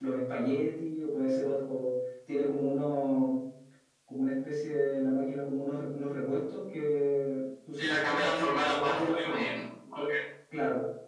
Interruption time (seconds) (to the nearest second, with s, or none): 8 s